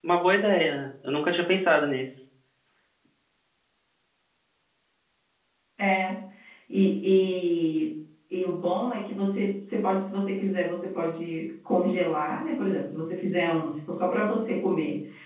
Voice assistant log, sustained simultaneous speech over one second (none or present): none